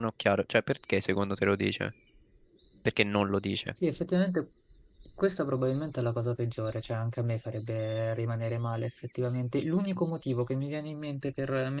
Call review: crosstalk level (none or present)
none